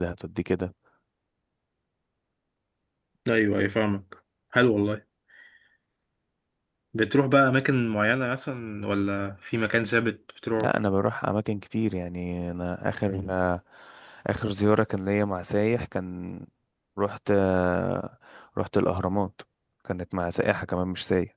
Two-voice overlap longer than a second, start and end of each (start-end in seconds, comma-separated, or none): none